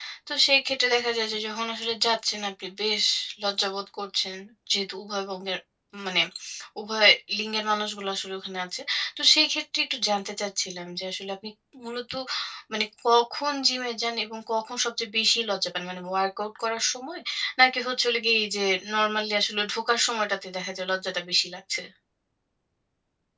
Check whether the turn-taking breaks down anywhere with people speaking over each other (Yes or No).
No